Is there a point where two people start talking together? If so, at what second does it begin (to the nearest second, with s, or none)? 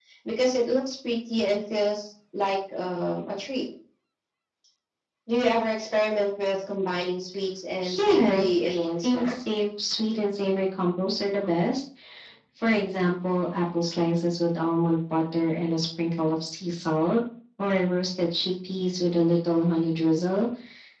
8 s